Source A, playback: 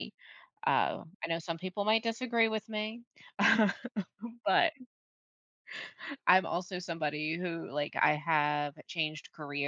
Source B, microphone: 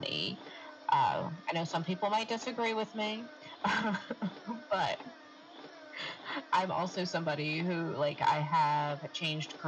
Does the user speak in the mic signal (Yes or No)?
No